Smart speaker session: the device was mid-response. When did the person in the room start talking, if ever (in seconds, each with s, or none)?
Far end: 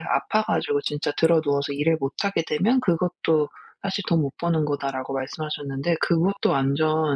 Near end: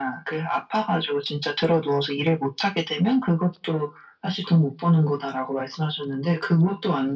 none